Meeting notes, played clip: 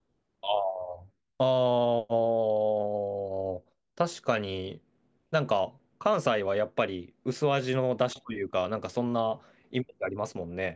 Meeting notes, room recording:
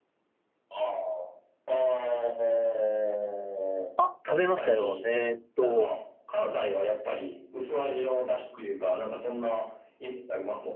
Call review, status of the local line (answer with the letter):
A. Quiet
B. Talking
B